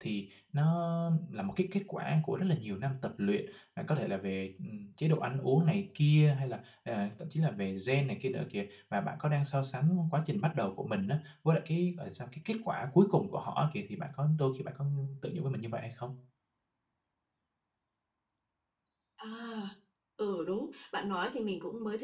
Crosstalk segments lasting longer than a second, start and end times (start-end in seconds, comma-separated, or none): none